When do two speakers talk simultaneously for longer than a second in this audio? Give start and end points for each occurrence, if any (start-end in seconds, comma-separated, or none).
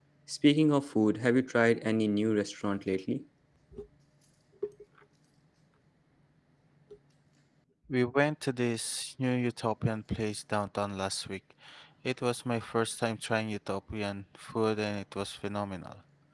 none